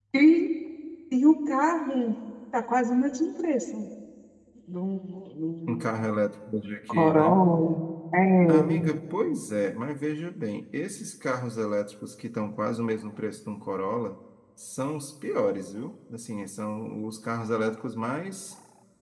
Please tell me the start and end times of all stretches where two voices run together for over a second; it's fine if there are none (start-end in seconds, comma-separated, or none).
none